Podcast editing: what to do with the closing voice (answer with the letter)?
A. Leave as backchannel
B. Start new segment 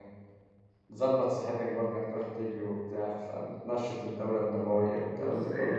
B